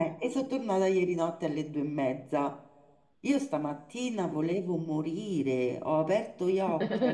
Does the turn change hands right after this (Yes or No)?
No